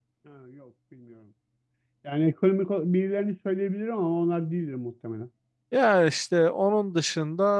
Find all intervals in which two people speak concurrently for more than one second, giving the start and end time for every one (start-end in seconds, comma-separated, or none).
none